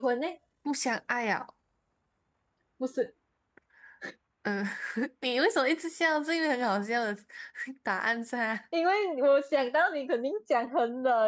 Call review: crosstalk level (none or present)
none